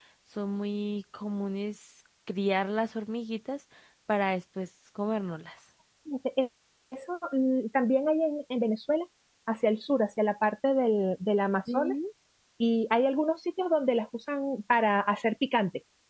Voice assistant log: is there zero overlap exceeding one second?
Yes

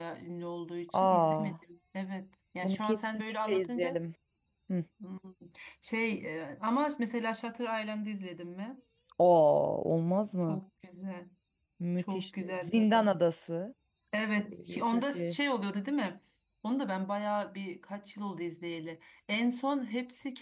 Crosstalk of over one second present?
Yes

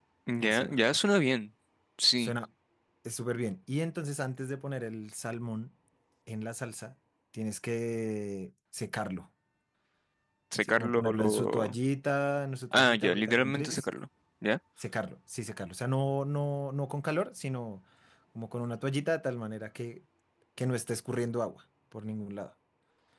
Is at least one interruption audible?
Yes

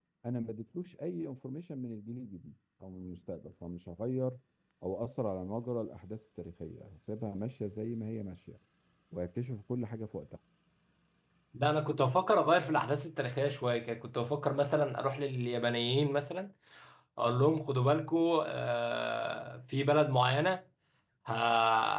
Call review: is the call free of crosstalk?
Yes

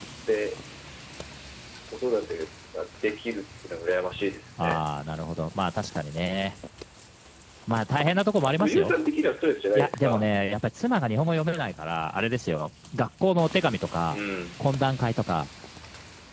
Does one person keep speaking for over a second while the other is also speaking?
No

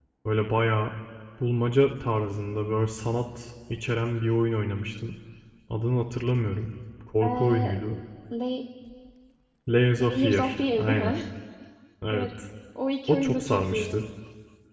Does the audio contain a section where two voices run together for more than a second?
Yes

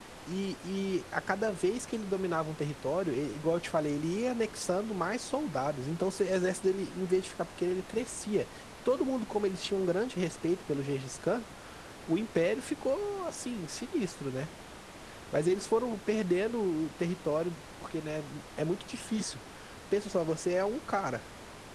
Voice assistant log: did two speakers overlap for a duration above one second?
No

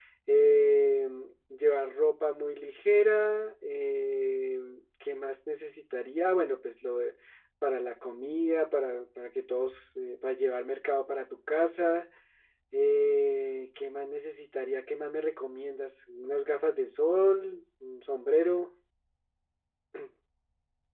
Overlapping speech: No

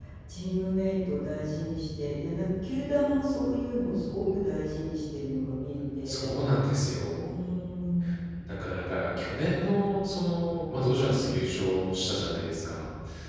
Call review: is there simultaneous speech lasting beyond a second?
No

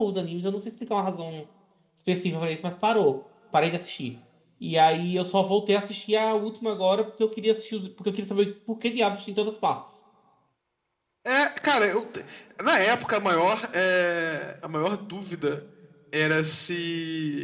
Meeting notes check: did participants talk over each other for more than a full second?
No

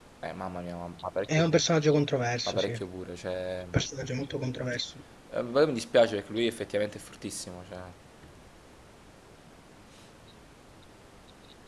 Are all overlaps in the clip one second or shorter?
Yes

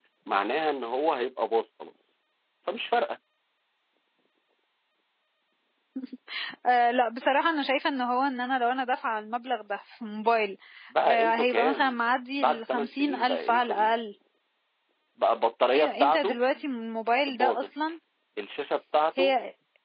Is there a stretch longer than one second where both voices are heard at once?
Yes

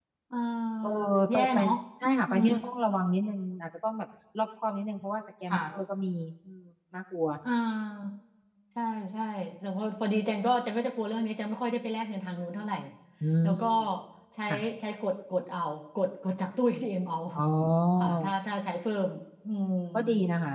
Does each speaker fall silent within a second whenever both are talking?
Yes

